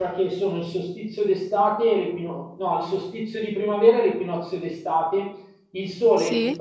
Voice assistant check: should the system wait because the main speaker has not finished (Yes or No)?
Yes